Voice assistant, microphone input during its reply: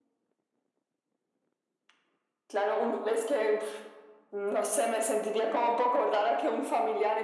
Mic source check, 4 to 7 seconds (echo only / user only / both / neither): echo only